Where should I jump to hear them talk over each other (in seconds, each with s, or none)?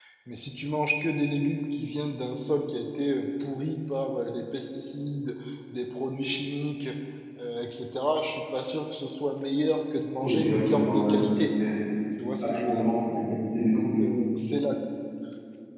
10.2 s